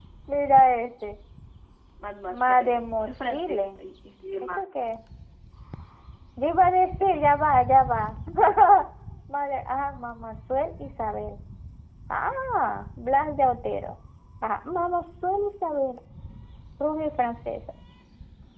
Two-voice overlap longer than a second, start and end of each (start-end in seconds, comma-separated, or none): 2.3-3.8